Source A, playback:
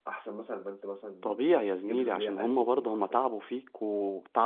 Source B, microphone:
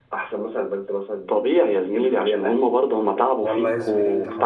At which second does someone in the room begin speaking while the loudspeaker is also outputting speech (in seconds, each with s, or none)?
3.4 s